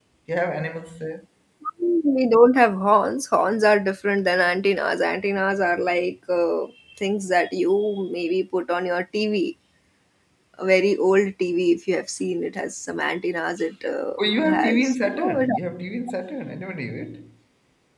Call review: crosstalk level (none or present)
present